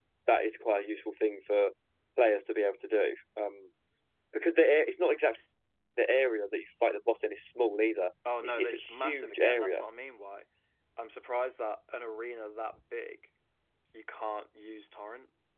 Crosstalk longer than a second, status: present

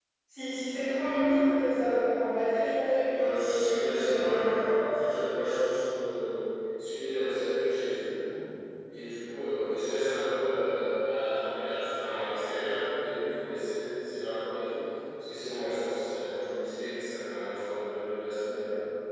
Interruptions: present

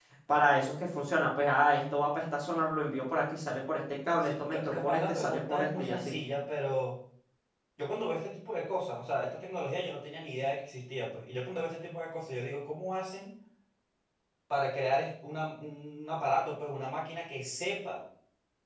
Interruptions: present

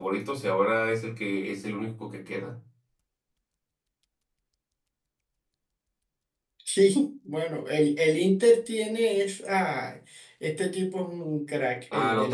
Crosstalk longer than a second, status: none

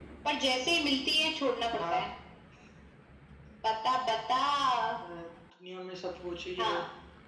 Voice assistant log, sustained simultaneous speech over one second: none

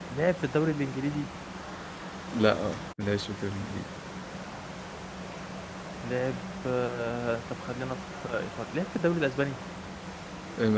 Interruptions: none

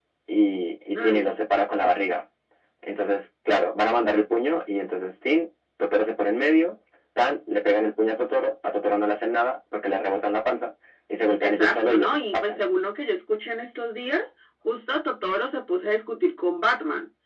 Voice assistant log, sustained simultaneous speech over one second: present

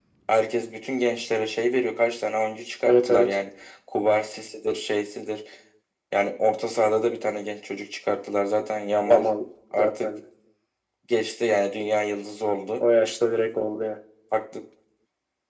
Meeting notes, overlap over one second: none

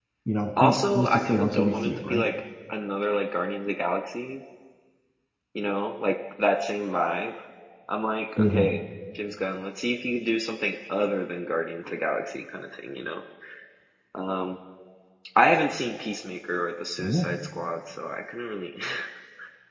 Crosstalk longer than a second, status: present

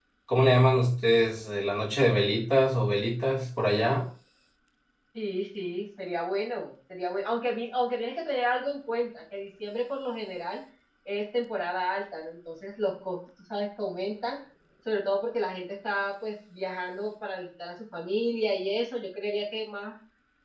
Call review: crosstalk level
none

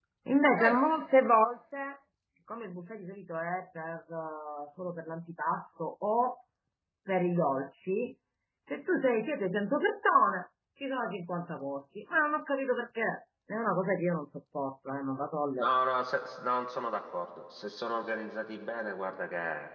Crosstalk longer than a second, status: none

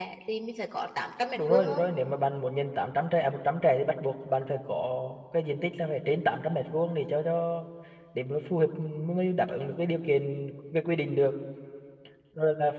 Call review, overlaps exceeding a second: none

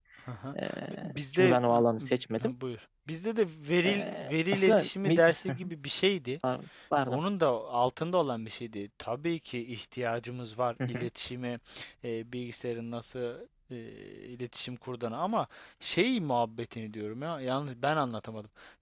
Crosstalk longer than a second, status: present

